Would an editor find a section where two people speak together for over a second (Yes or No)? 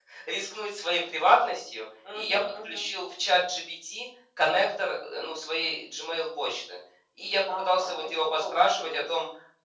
Yes